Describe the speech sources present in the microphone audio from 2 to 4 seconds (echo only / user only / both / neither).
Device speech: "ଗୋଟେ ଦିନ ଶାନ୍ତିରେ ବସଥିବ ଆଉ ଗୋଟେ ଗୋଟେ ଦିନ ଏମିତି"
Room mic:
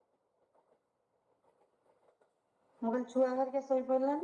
user only